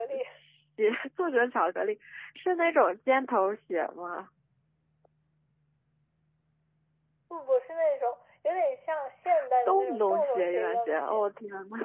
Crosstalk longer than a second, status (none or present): present